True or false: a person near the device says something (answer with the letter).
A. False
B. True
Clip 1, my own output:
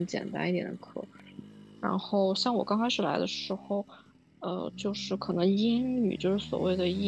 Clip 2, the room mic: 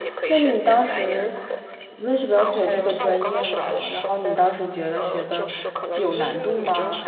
B